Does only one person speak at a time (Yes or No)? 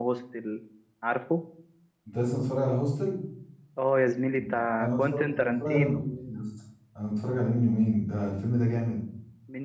No